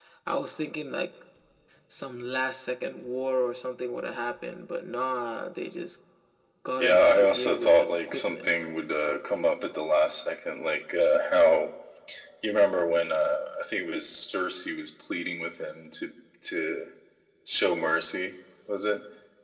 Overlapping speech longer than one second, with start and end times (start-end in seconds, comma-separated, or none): 6.8-8.6